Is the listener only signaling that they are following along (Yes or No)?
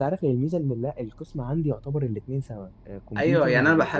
No